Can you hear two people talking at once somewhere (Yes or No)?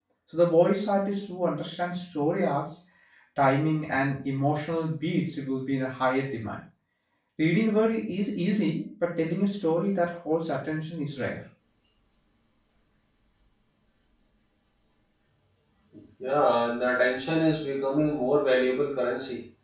No